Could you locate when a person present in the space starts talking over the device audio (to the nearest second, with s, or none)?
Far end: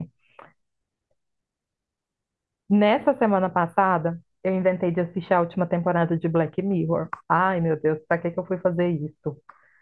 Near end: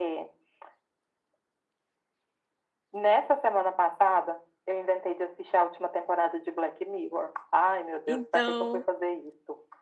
8 s